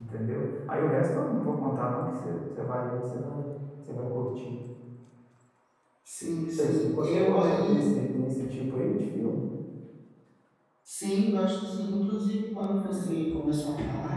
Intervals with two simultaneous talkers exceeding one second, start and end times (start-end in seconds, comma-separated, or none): 6.6-7.8